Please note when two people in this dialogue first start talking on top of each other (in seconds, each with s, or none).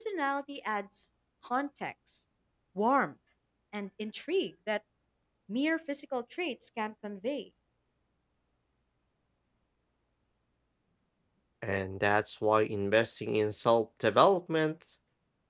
none